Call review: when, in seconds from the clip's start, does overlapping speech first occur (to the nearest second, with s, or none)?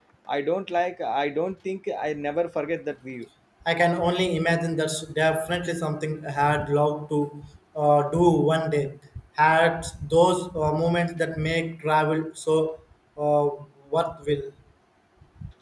none